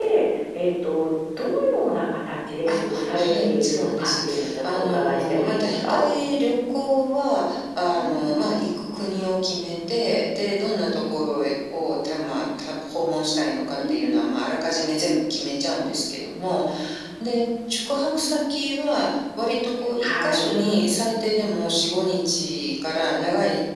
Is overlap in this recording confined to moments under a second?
No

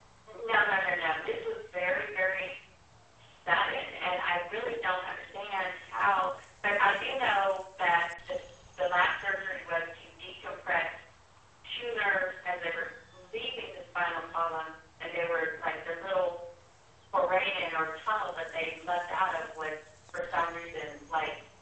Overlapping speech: No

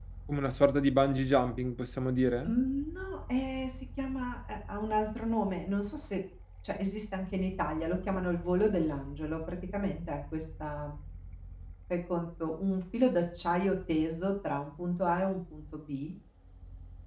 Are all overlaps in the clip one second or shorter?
Yes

